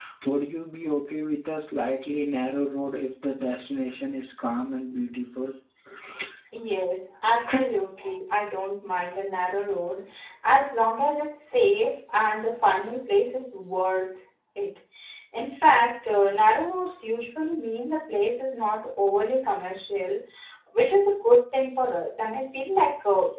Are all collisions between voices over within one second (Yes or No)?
Yes